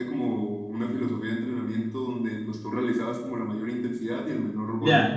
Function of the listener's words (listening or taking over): taking over